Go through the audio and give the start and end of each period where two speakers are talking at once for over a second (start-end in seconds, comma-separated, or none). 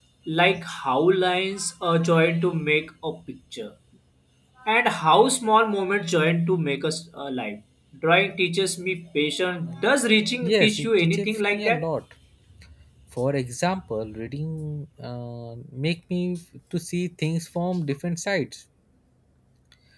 10.4-11.8